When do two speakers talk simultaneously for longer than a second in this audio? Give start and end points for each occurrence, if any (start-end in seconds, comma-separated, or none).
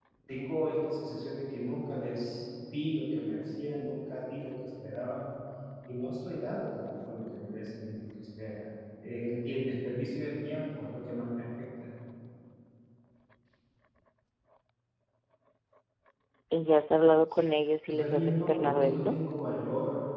17.9-19.2